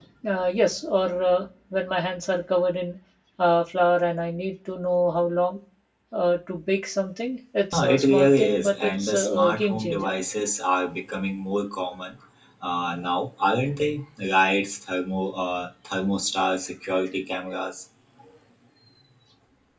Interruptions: present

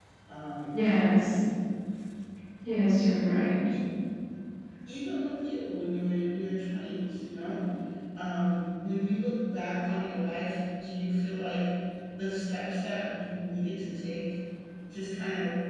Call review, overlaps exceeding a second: none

